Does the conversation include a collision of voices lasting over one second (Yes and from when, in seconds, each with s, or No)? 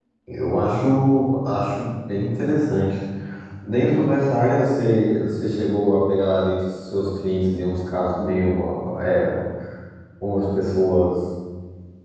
No